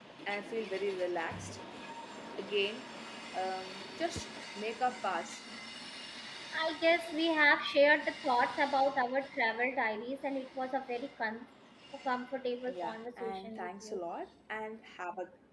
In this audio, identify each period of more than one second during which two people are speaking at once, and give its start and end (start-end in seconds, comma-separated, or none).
12.7-14.0